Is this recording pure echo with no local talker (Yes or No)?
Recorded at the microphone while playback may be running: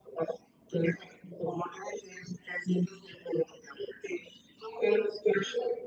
Yes